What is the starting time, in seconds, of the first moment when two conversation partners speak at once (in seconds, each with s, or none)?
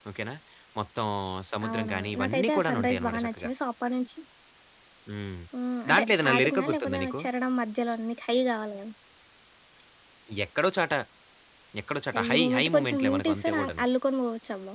1.7 s